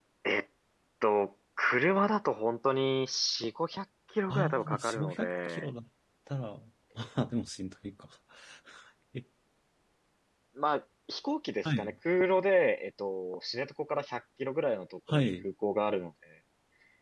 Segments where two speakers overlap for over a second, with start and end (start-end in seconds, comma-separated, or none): 4.3-5.7